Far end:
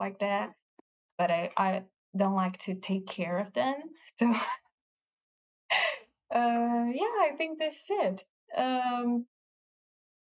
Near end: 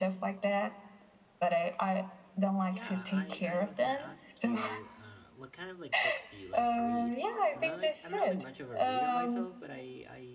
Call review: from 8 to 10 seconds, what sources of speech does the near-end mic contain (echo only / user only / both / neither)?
both